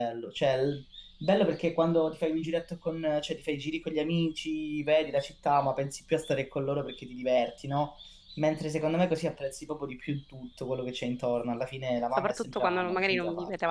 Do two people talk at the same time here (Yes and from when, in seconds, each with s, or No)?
Yes, from 12.2 s